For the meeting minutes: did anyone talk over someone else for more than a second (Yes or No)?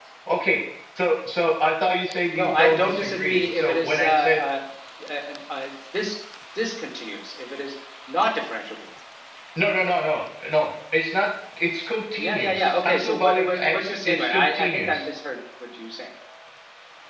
Yes